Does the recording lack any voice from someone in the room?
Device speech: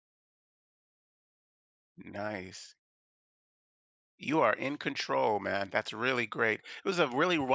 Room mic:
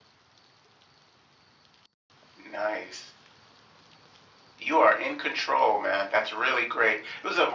Yes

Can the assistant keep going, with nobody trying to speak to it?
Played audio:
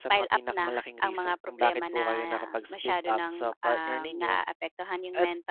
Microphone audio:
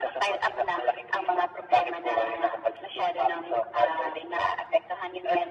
Yes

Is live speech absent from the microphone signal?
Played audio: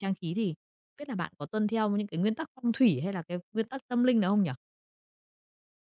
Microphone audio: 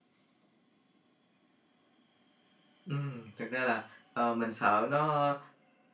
No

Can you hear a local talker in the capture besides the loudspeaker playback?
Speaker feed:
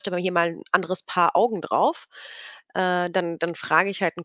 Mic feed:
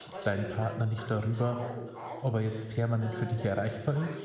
Yes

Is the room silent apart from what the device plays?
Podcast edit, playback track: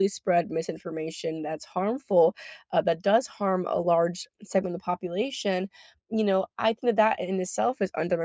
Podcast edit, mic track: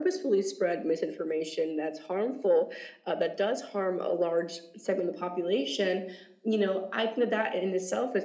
Yes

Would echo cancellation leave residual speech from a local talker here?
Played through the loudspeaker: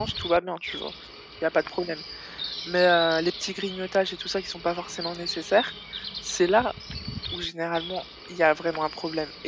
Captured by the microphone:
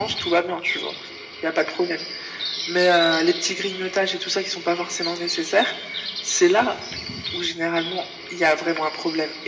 No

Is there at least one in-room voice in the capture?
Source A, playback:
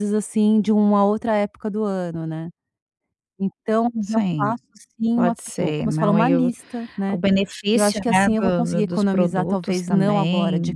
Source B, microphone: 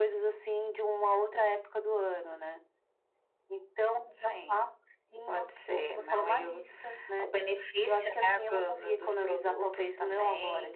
No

